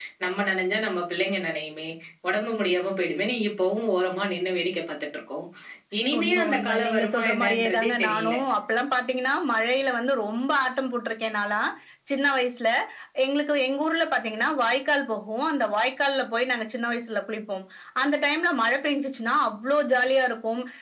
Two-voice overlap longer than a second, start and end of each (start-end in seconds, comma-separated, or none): 6.2-8.3